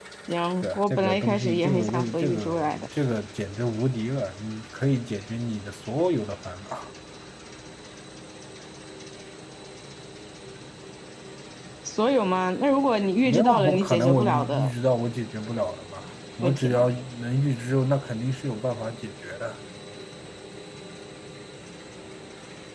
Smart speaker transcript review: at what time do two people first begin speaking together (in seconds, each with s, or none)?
0.6 s